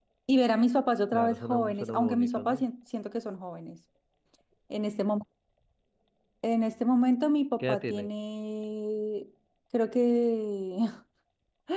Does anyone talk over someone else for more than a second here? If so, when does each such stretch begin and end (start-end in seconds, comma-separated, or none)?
1.1-2.6